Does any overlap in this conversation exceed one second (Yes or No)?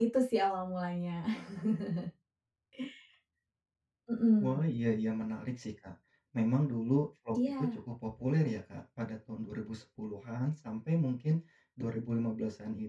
No